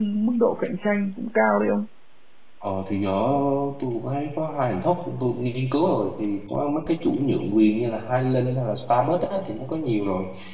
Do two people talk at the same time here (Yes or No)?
No